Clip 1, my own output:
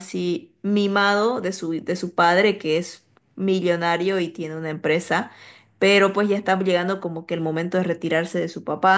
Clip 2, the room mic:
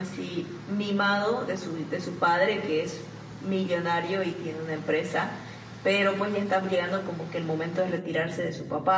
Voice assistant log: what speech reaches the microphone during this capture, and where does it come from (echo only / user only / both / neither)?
echo only